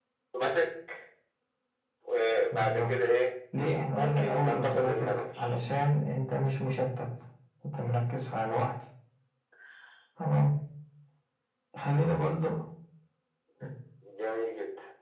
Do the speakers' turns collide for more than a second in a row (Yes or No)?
Yes